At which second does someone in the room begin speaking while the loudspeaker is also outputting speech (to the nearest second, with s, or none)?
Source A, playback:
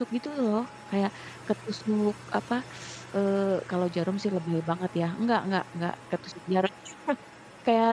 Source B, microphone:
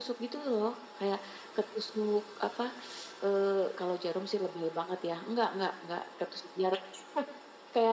none